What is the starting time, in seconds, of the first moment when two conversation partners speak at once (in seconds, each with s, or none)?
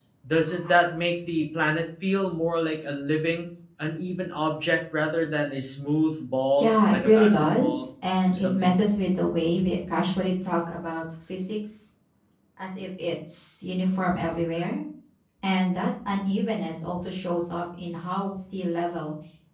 6.6 s